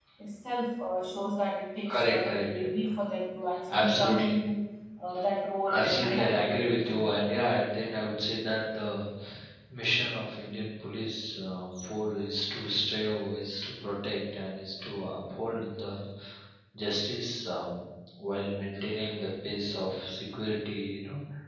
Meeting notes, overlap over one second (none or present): present